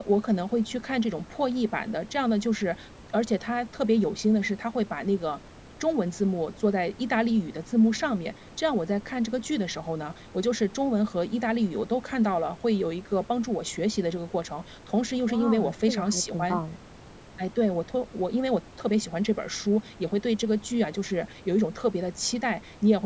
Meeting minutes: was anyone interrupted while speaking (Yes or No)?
Yes